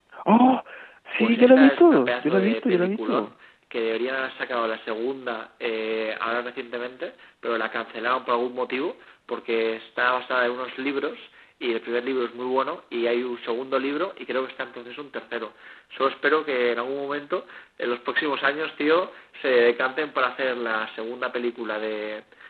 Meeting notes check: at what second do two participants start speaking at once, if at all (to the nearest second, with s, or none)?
1 s